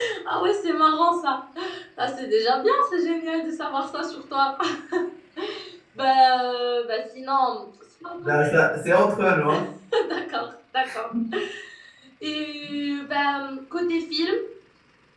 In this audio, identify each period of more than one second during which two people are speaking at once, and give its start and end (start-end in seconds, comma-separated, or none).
none